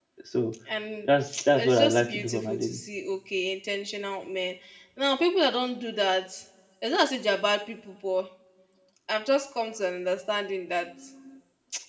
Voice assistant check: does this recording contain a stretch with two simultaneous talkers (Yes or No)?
Yes